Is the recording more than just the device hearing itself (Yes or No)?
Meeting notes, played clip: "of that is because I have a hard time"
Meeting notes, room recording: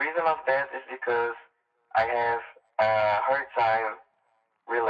No